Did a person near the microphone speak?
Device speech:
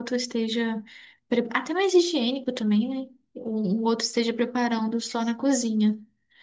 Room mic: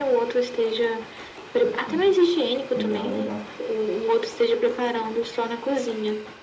Yes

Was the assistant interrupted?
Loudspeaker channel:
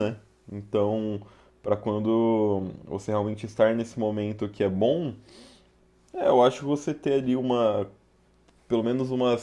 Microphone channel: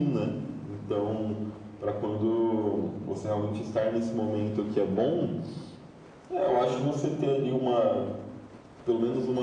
No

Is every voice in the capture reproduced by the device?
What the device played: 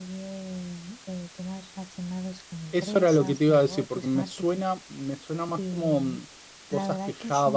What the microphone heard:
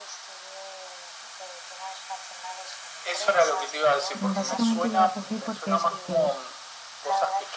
No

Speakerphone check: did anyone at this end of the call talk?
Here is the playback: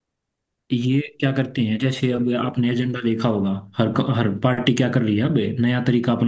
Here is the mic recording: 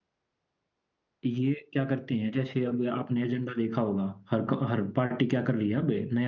No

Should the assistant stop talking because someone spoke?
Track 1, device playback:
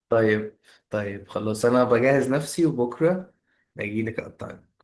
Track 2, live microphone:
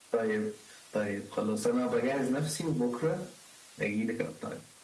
No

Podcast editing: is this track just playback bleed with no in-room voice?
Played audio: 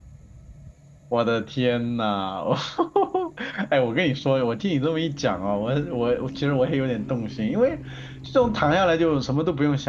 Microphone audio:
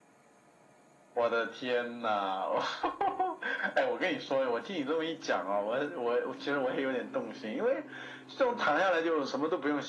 Yes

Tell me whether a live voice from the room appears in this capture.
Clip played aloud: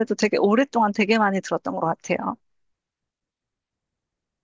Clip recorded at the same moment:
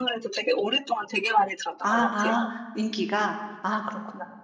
Yes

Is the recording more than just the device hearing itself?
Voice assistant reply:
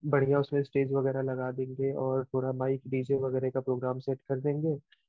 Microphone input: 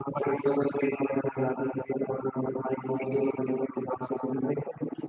No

